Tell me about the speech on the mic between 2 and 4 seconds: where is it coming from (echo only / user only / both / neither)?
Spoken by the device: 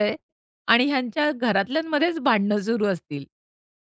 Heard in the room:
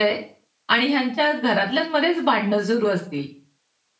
echo only